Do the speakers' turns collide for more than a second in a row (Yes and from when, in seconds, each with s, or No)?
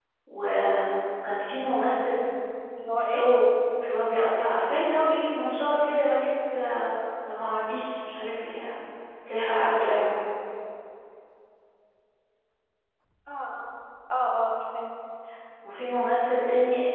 No